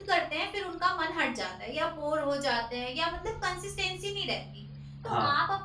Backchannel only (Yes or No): Yes